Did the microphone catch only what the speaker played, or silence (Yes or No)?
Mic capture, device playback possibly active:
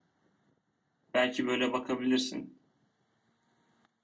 No